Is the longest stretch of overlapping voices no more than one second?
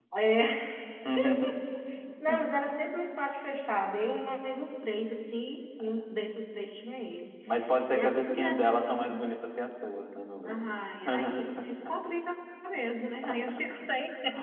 No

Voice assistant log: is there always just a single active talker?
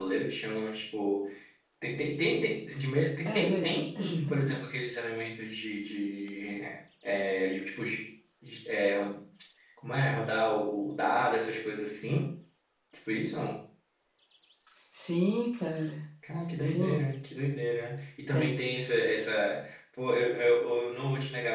No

